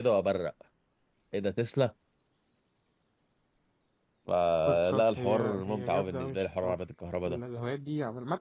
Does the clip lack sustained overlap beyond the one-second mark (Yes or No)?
No